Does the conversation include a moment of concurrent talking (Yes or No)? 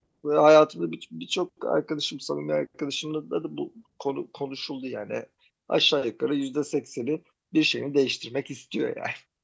No